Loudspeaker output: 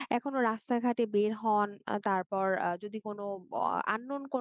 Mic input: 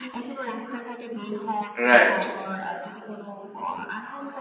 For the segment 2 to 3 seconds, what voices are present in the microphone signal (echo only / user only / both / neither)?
both